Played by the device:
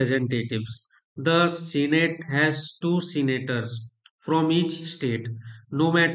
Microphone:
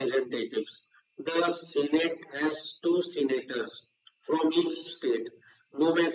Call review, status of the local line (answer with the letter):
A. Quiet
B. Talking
A